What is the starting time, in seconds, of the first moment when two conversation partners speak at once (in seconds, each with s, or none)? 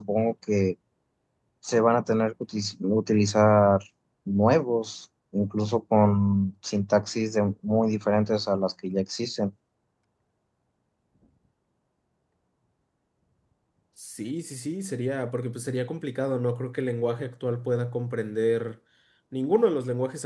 none